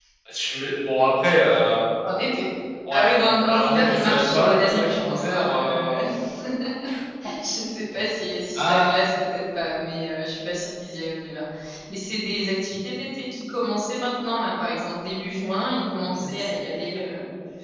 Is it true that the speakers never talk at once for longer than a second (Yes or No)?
No